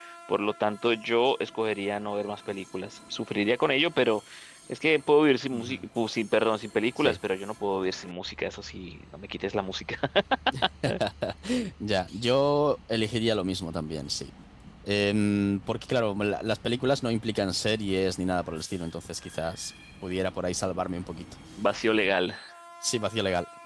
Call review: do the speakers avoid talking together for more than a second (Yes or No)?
Yes